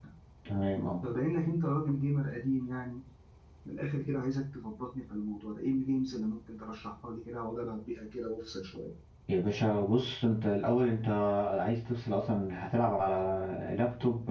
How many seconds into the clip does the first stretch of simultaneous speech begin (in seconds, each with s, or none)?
none